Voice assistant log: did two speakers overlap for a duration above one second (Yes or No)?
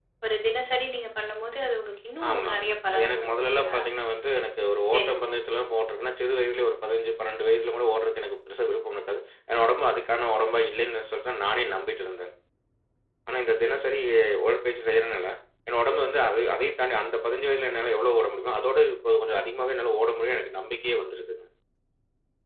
Yes